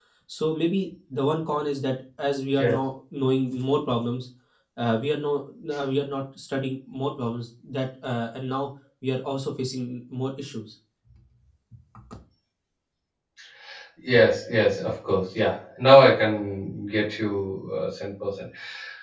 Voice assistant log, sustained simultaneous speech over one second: none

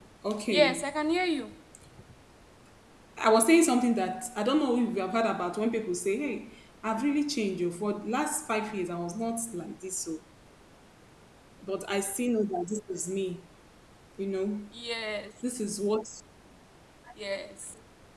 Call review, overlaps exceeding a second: none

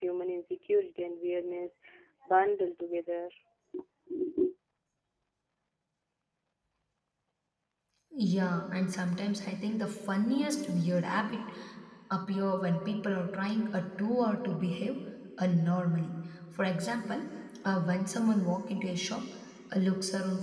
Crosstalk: none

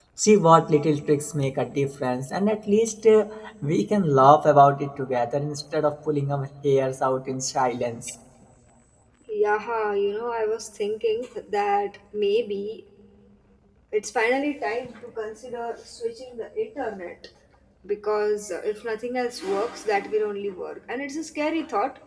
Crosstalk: none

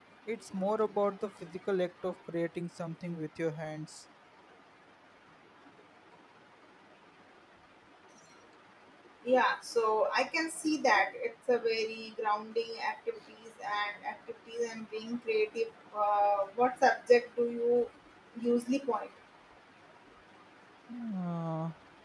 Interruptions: none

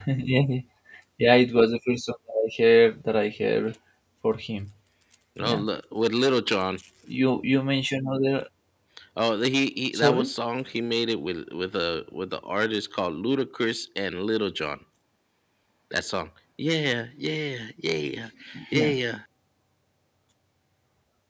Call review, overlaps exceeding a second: none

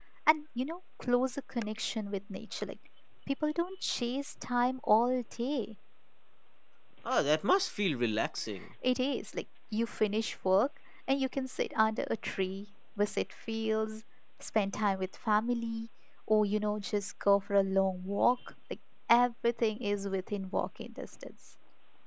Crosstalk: none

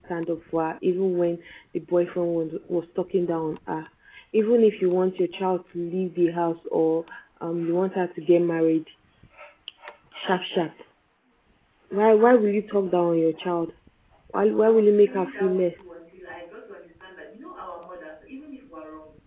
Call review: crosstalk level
present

